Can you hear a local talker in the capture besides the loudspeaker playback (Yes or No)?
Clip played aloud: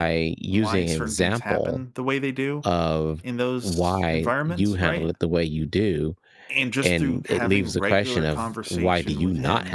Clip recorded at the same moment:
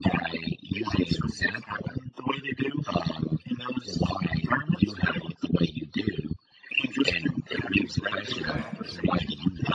Yes